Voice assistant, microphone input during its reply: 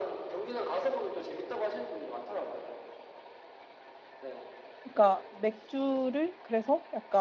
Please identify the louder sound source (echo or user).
user